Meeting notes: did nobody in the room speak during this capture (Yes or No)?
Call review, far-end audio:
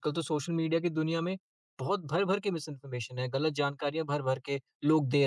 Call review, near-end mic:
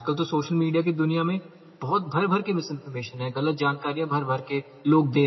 Yes